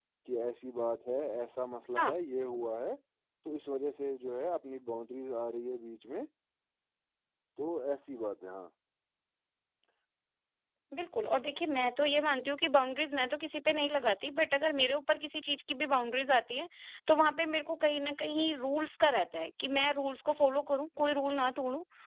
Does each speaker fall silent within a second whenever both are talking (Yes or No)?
Yes